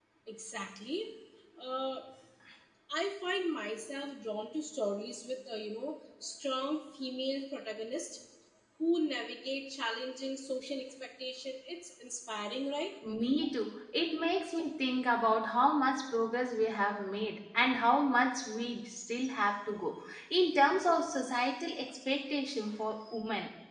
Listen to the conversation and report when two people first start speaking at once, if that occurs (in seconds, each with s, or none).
none